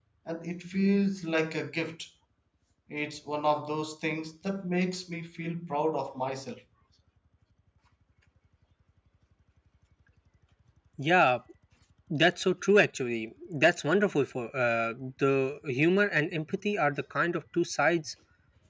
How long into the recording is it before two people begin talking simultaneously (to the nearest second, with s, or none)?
none